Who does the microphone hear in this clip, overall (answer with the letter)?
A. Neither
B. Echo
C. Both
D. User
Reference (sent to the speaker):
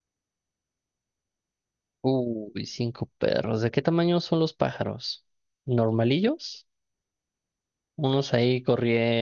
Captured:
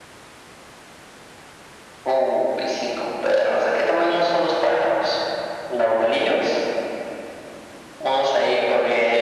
B